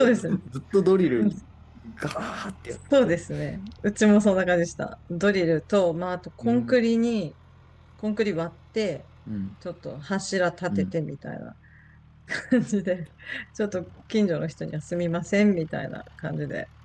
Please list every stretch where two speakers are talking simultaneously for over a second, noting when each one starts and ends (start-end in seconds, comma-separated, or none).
none